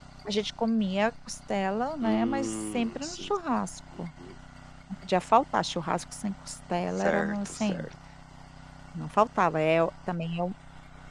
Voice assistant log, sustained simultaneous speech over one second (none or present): present